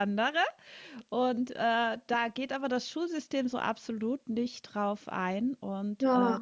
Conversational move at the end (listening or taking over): taking over